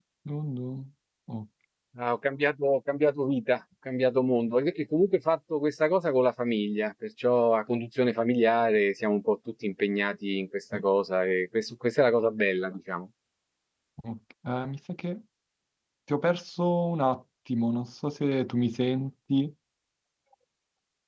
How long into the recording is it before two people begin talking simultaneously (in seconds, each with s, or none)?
none